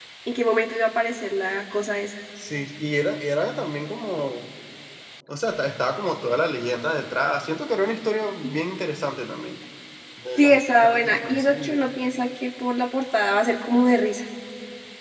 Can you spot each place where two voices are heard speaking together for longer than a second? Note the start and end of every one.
10.4-11.9

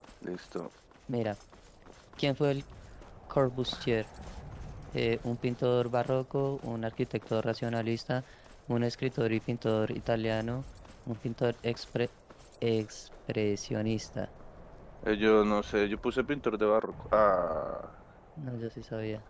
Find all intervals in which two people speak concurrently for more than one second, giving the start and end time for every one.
none

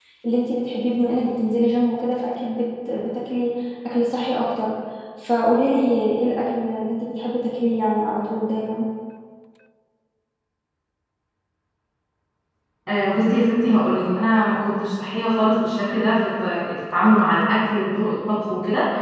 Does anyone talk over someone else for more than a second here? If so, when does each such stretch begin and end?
none

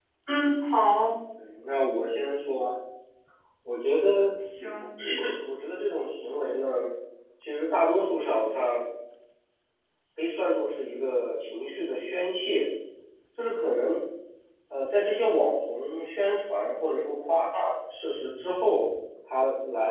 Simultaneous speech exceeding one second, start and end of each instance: none

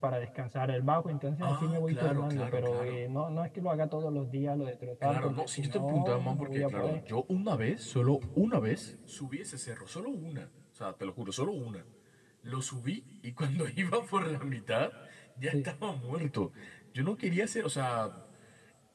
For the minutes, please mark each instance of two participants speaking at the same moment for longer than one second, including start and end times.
1.4-3.0, 5.0-7.0

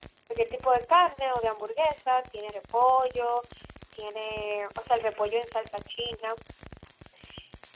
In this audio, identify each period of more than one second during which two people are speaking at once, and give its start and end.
none

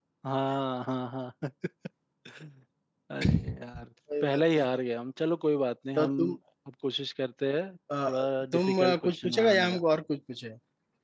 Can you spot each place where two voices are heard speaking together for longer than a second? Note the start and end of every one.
8.5-9.8

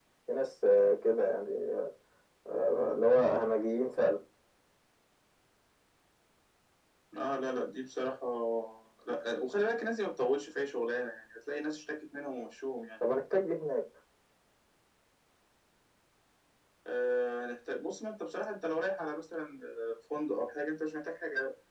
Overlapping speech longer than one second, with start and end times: none

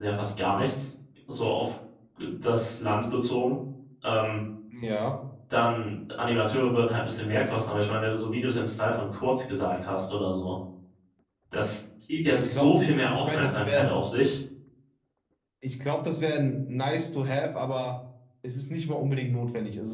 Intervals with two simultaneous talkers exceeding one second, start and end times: 12.4-13.9

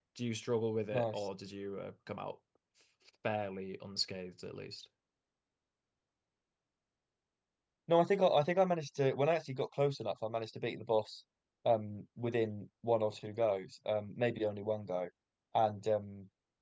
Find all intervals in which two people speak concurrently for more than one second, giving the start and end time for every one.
none

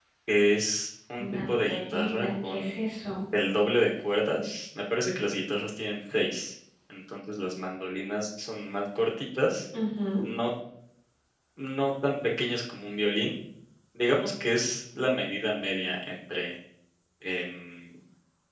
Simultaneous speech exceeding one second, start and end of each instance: 1.2-2.8

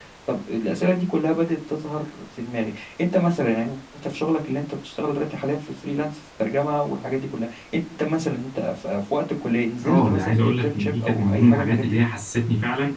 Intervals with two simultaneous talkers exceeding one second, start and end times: 9.8-12.0

